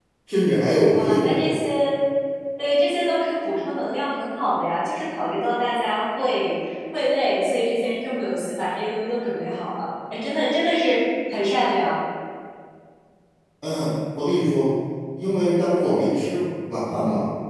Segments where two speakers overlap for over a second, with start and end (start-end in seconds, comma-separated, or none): none